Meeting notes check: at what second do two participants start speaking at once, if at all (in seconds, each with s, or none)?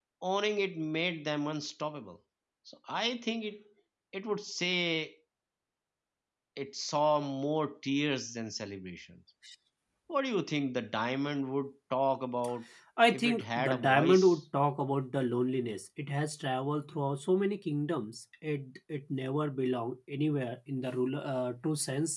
13.1 s